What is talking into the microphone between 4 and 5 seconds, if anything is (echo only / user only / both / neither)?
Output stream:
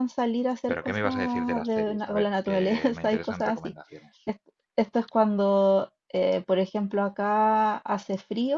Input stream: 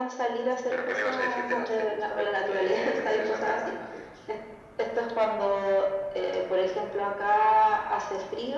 echo only